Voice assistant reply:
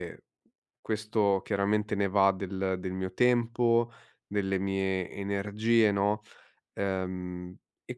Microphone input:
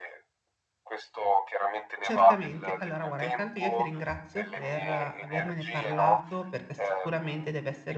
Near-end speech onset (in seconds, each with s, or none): 2.0 s